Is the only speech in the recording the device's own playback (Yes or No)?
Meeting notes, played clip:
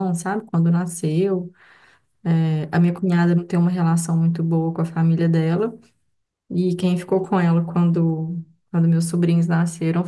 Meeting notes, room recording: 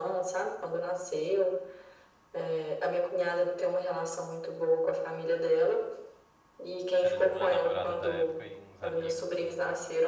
No